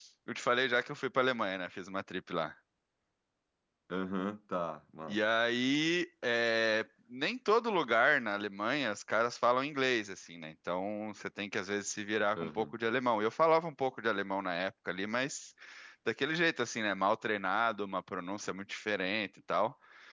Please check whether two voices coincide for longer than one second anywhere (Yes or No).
No